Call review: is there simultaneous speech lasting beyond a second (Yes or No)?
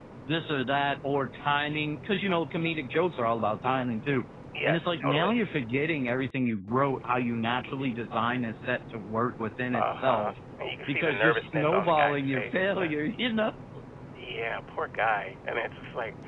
Yes